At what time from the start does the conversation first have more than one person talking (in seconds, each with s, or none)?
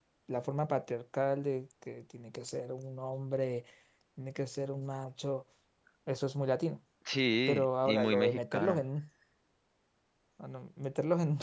7.5 s